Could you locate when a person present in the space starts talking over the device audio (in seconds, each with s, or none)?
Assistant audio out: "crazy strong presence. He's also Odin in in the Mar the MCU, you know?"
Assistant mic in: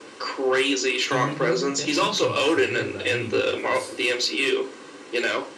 1.1 s